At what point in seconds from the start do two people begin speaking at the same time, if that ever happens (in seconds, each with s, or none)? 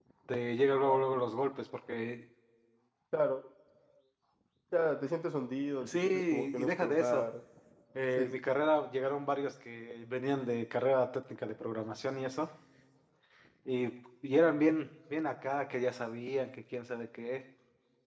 5.9 s